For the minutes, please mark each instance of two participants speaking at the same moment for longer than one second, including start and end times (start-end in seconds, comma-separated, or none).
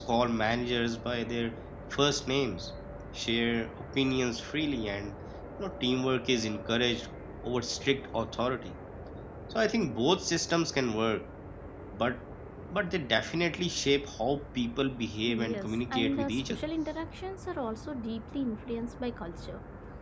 15.2-16.6